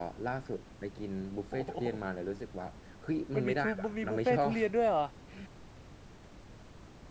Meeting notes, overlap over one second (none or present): present